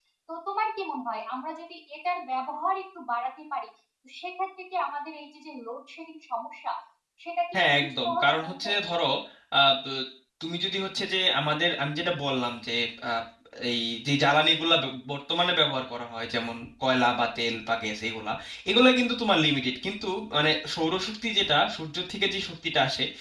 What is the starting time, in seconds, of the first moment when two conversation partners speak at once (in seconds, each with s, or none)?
7.5 s